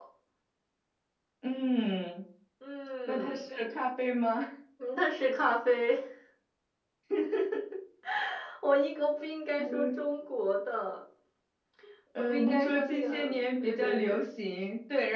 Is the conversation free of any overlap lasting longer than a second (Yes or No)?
No